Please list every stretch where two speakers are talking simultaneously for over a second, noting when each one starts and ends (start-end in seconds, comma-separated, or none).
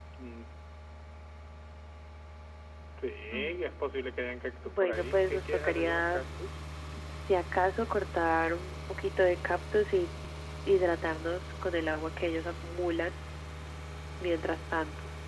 4.7-6.2